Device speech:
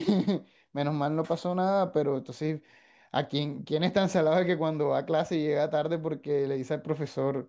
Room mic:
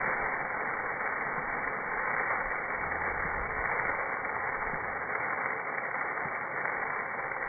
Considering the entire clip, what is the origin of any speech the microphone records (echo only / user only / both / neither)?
neither